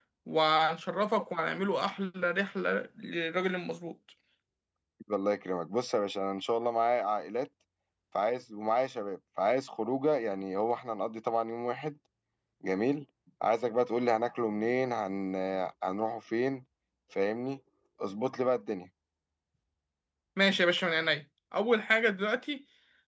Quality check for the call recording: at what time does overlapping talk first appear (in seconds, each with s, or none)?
none